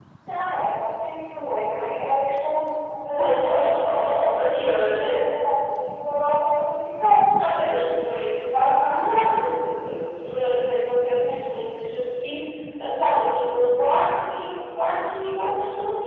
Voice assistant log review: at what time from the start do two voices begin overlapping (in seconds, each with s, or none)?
3.2 s